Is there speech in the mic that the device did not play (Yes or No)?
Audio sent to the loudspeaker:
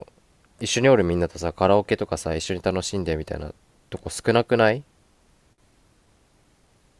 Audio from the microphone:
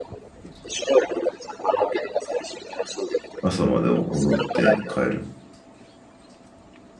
Yes